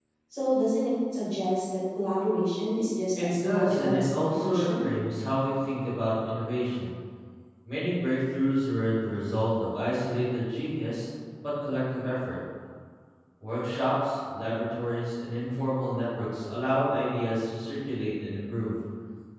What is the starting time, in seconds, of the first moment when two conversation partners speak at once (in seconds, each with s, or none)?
3.1 s